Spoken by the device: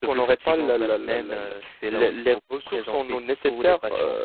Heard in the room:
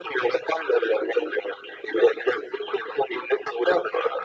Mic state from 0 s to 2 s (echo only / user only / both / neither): echo only